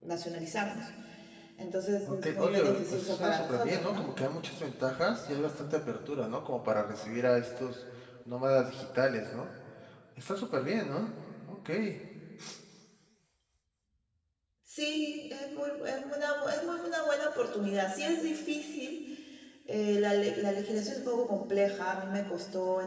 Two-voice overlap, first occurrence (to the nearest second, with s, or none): 2 s